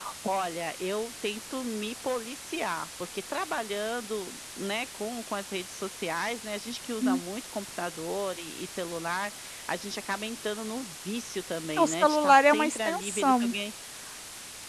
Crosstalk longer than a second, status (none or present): present